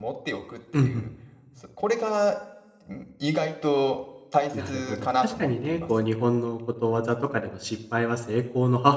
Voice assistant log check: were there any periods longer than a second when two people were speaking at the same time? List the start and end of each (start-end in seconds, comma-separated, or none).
4.5-5.8